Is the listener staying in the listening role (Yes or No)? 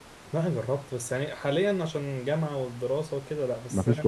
Yes